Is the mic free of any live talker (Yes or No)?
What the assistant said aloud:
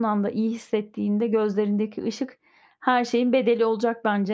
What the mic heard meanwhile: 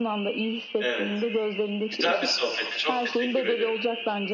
No